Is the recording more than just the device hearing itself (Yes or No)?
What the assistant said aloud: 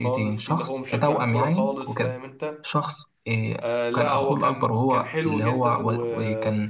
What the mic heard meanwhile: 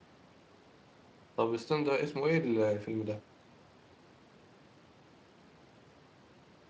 Yes